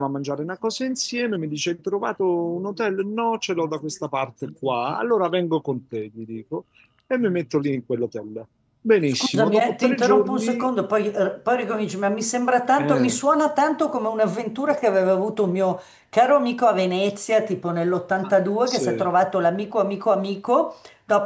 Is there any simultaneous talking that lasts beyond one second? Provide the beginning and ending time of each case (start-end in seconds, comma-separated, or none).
9.2-10.7